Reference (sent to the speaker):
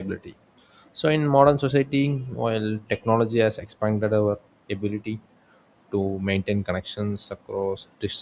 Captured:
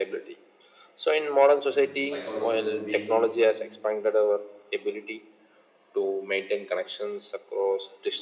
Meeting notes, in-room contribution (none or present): present